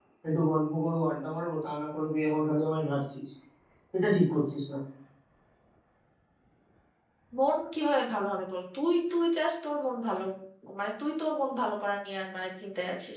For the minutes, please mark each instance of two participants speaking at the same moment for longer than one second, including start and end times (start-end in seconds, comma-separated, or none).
none